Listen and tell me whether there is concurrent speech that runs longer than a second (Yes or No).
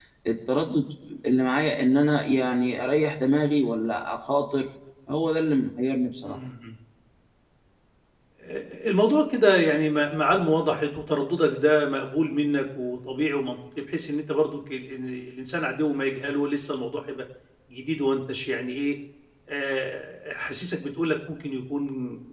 No